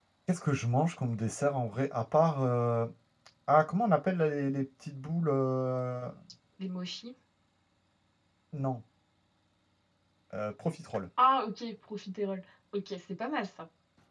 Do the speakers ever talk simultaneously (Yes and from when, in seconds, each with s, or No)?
No